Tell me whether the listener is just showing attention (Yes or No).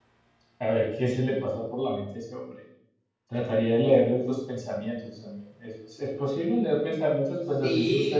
No